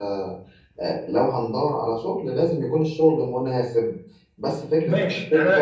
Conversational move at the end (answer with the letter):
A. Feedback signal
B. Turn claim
B